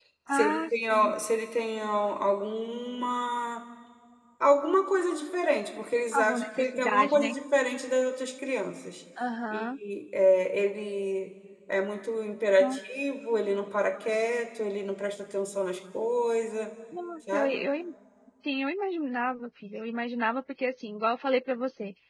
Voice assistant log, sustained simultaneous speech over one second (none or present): present